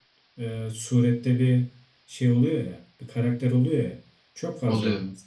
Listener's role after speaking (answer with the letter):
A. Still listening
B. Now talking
A